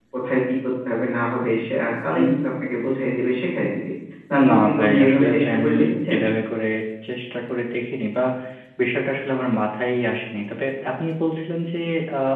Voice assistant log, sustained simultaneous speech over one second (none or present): present